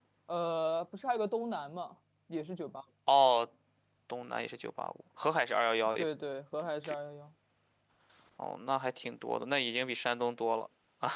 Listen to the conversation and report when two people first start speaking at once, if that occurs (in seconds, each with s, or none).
none